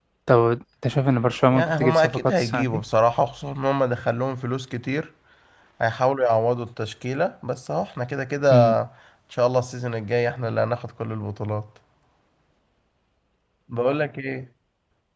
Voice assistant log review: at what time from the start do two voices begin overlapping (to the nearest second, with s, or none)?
2 s